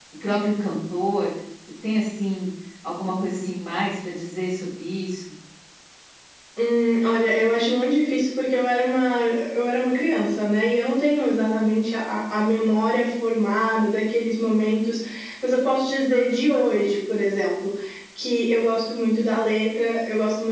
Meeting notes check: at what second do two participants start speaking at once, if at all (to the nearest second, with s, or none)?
none